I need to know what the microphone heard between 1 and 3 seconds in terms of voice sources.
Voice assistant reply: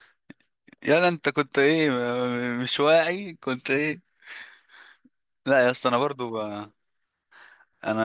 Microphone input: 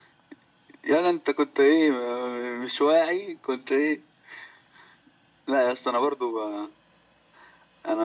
echo only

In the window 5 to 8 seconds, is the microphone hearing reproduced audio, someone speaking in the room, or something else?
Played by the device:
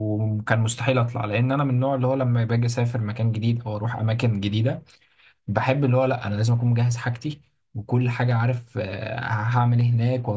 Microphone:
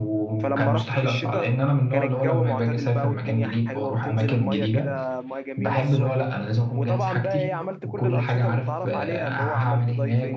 both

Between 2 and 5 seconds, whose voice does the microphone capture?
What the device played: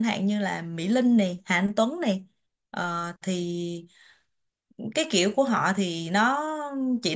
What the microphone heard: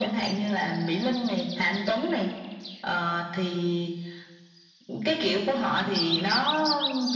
echo only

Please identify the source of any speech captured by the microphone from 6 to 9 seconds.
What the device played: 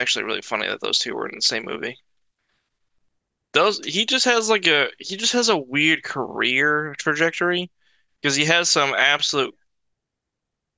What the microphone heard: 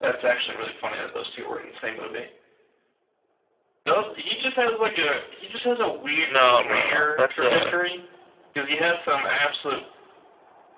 both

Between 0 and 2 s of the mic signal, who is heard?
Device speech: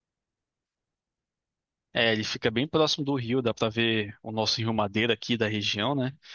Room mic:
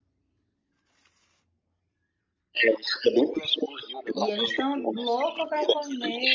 neither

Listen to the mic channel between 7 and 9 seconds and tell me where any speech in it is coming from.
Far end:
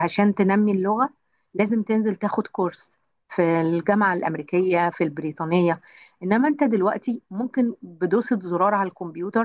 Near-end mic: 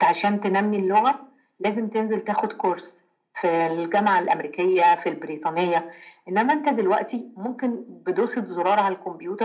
echo only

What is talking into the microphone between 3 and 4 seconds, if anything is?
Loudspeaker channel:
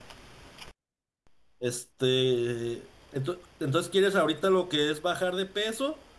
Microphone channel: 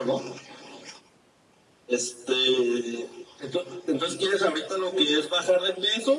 echo only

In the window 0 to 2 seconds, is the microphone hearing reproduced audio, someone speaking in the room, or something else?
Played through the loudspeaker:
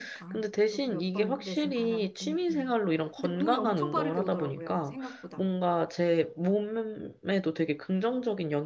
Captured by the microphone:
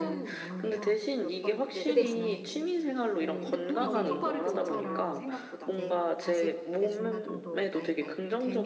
both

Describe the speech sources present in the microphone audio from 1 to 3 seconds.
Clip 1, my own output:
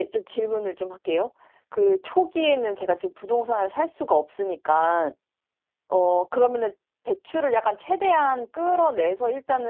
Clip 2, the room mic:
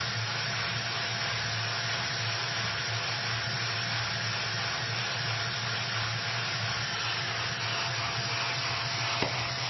neither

